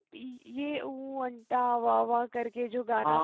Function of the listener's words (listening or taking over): taking over